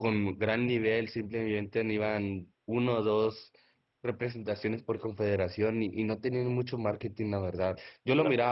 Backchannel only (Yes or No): Yes